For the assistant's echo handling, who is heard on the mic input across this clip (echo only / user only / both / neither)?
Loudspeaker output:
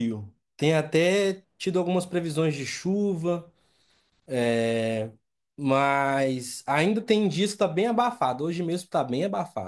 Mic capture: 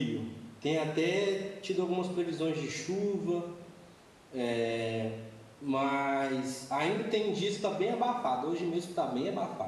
echo only